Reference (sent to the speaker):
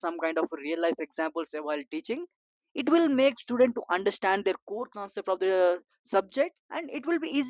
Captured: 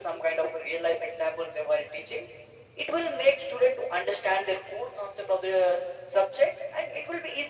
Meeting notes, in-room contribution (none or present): none